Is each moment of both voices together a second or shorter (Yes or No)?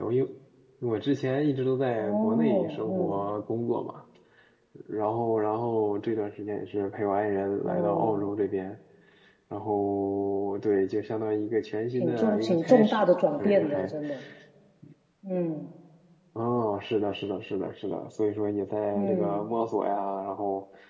No